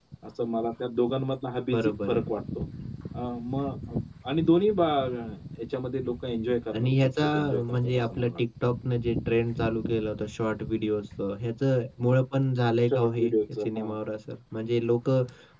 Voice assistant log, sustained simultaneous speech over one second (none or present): present